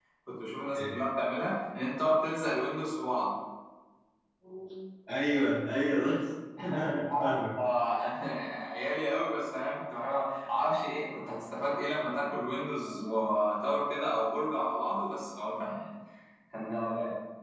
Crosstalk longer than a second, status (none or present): none